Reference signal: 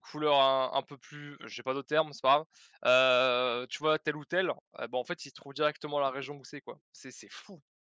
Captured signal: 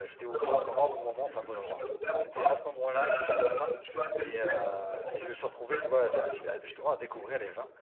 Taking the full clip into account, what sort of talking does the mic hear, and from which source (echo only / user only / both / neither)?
both